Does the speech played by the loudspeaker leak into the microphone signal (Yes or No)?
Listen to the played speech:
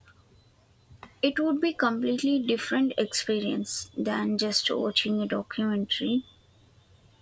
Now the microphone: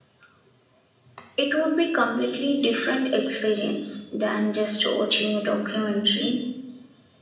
Yes